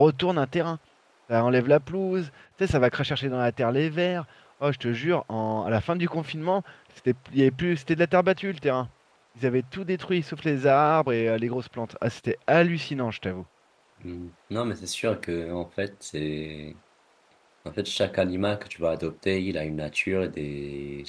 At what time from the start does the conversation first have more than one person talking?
none

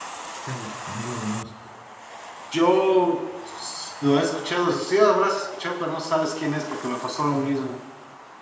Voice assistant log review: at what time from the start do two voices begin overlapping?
none

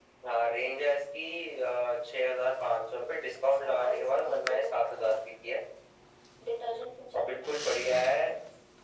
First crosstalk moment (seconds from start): 3.4 s

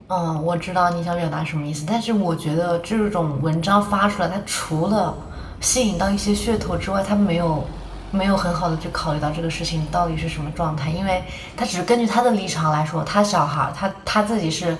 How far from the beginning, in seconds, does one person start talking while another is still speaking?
none

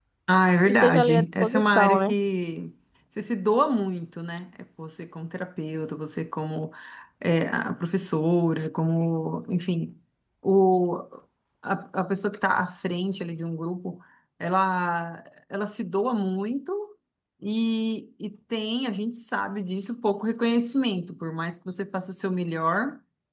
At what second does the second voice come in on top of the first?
0.7 s

